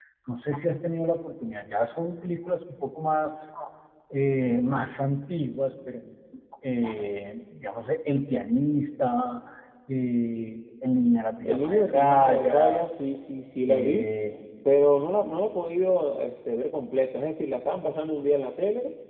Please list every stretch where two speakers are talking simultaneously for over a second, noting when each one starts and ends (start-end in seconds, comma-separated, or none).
11.4-13.2